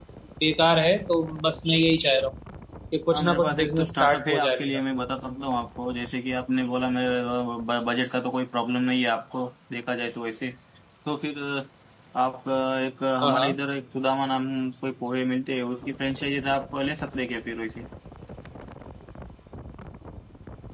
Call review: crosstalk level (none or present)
present